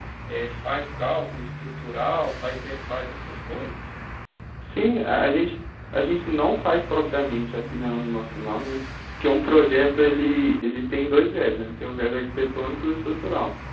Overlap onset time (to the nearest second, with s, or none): none